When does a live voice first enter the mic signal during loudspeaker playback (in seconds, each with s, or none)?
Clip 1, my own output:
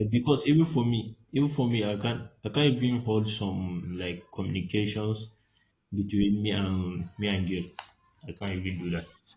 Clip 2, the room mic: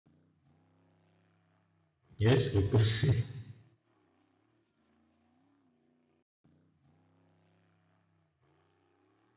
2.2 s